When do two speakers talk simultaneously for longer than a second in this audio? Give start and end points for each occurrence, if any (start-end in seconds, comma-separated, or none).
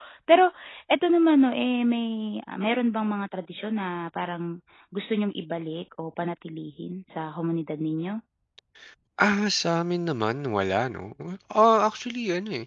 none